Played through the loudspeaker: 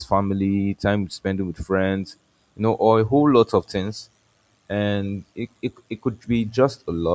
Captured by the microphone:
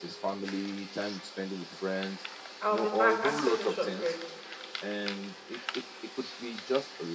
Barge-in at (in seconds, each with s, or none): 2.6 s